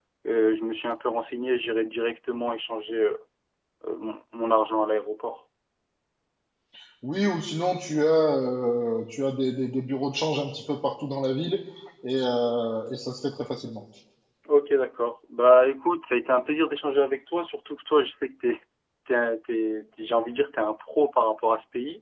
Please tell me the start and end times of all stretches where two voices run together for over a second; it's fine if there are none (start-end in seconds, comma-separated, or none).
none